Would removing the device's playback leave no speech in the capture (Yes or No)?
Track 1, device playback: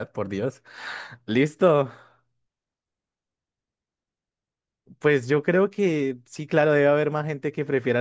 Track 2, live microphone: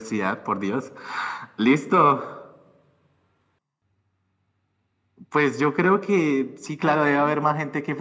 No